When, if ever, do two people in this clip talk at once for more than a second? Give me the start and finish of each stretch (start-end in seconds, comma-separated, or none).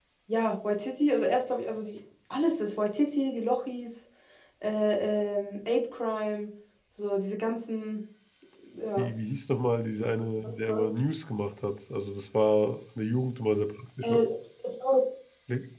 none